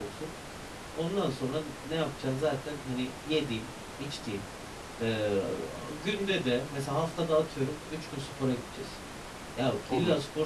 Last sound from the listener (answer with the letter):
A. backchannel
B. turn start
A